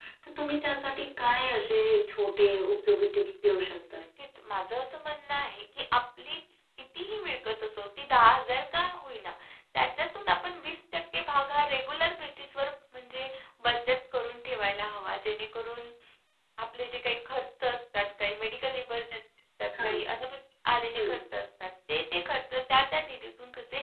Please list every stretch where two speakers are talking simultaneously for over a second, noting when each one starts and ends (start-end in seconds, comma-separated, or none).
none